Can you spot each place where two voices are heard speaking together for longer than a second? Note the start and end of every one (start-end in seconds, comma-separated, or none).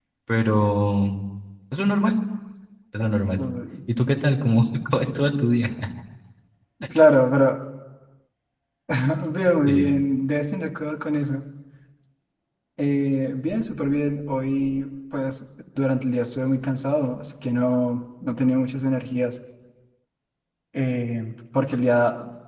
none